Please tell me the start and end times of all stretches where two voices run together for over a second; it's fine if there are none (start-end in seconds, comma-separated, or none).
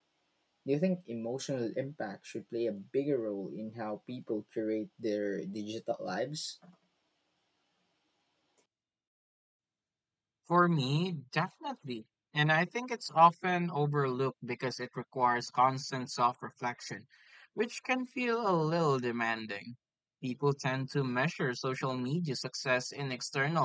none